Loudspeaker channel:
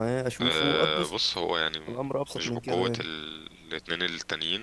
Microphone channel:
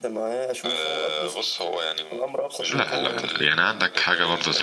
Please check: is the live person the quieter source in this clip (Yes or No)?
No